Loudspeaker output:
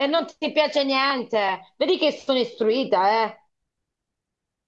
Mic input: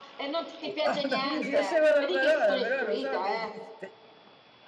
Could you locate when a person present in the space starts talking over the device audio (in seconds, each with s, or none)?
0.6 s